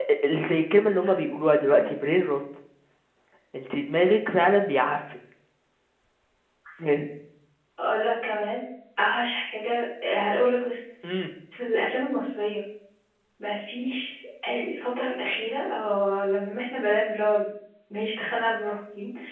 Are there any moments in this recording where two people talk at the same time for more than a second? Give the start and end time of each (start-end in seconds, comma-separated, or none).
none